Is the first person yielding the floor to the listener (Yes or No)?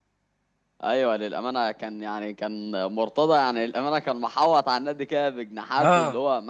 No